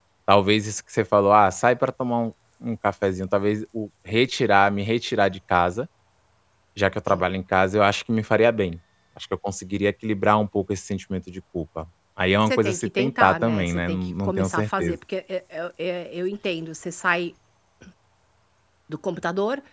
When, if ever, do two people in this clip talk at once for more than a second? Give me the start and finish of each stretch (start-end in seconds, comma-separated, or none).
12.5-15.0